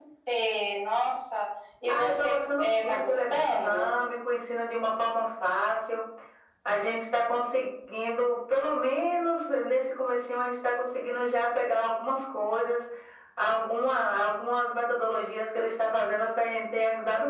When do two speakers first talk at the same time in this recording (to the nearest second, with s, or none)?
2 s